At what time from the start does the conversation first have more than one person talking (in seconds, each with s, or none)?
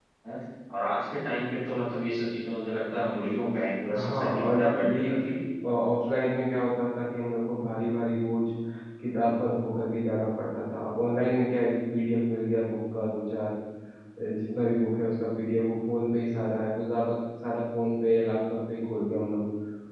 4.0 s